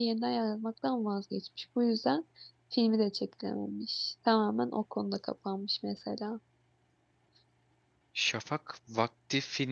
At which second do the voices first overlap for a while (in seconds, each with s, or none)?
none